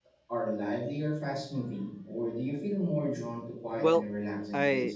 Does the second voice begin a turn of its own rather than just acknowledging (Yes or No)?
Yes